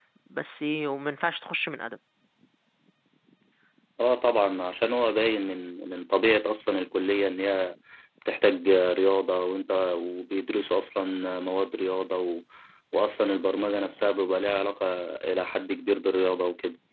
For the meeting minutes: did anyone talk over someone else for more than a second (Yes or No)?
No